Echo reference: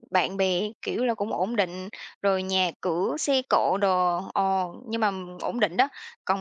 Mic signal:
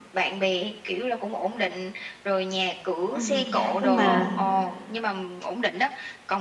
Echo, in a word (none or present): present